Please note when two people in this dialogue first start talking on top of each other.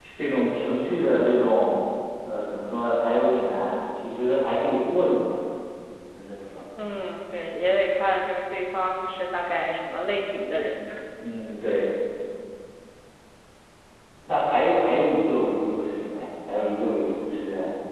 none

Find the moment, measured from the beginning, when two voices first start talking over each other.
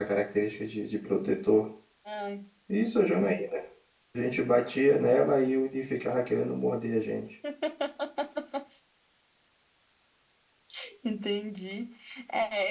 none

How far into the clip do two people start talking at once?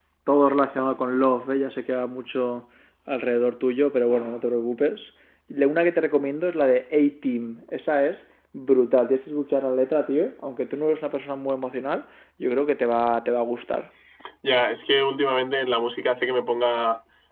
none

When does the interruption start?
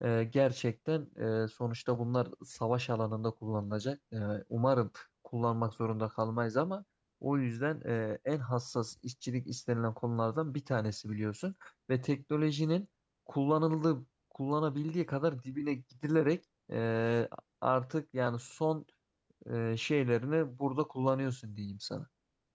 none

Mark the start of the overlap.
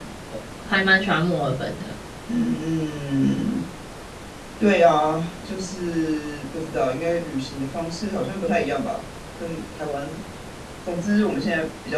none

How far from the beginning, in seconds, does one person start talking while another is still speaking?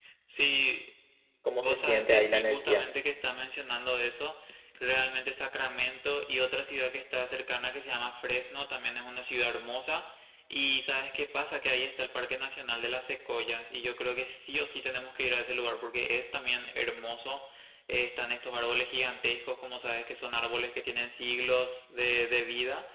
1.6 s

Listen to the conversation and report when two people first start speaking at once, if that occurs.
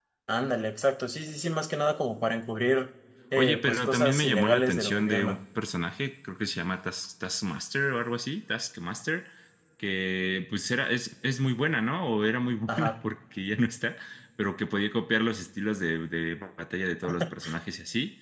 3.4 s

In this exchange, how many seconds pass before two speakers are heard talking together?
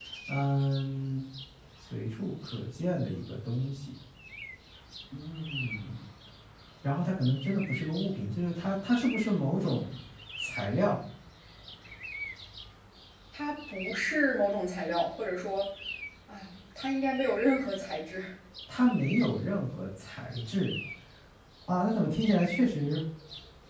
none

